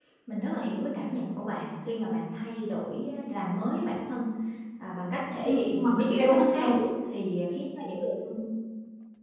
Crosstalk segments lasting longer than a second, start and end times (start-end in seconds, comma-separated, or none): 5.4-6.7